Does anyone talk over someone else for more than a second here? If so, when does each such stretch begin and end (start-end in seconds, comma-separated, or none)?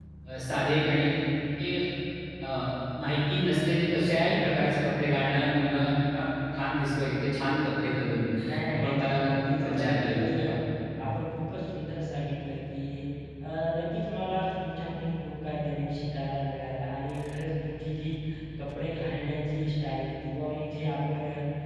8.5-10.5